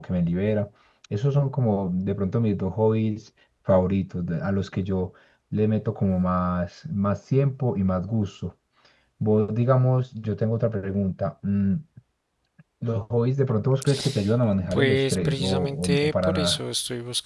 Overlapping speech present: Yes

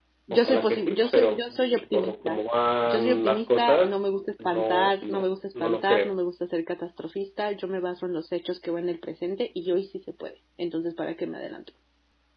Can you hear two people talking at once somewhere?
Yes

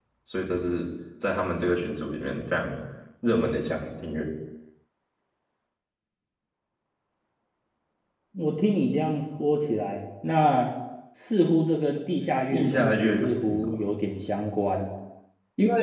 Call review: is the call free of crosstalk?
No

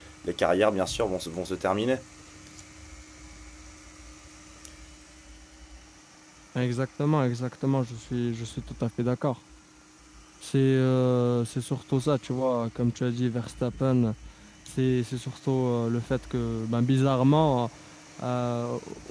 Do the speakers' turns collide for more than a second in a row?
No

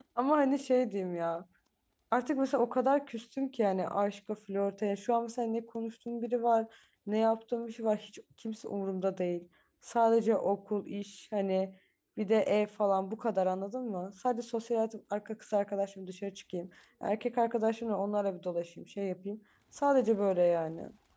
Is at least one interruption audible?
No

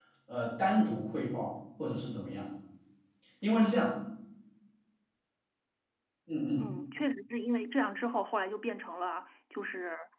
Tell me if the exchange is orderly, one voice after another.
Yes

